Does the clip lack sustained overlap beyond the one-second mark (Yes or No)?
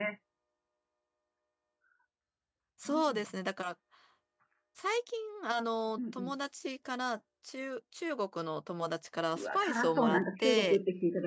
No